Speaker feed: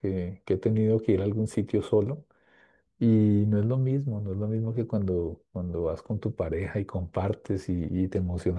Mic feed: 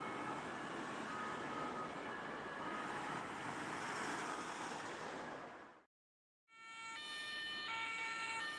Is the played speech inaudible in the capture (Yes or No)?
Yes